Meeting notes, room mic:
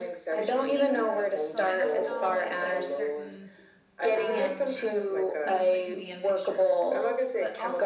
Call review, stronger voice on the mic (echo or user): echo